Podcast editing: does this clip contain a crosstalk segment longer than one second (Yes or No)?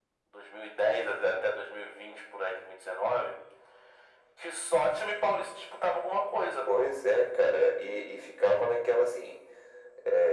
No